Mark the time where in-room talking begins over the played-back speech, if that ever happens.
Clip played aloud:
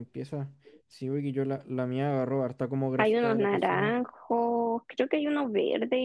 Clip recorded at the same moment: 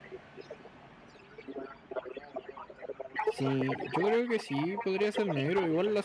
3.2 s

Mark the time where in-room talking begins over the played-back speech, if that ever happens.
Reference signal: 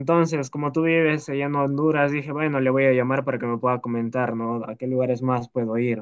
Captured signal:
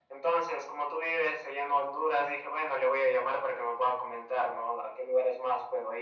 none

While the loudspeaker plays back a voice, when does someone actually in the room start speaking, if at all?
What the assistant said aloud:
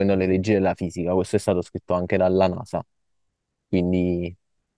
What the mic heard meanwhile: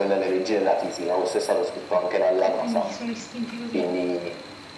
2.4 s

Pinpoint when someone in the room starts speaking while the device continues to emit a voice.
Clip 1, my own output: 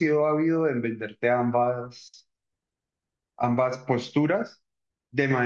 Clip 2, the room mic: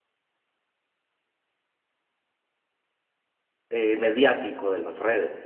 3.7 s

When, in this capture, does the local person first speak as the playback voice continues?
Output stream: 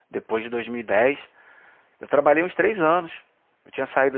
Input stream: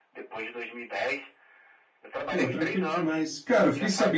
2.3 s

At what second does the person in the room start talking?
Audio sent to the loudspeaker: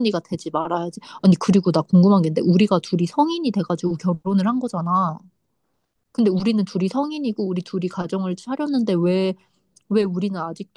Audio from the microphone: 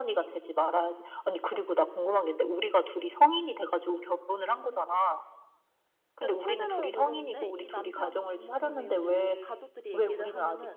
6.2 s

